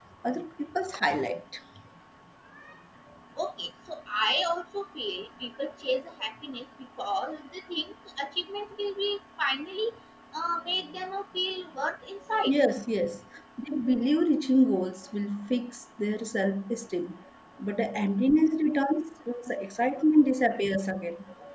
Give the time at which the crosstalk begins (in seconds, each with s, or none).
none